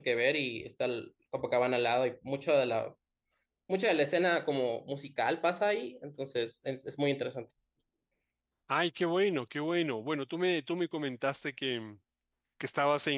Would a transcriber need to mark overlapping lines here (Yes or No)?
No